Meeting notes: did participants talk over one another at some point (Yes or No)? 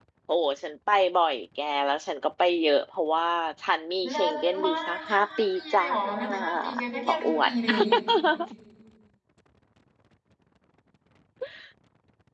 Yes